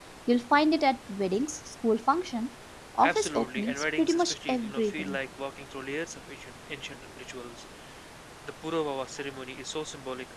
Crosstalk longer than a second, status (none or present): present